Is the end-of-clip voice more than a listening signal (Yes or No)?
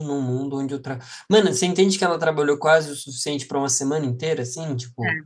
No